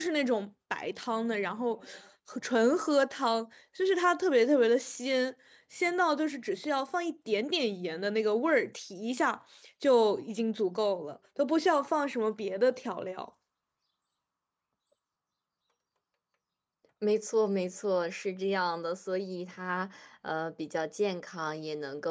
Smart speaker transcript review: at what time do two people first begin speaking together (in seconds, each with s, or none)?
none